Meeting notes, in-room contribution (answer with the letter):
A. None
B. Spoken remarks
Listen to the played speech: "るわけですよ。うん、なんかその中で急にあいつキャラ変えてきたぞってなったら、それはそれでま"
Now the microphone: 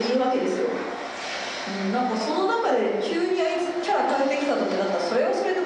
A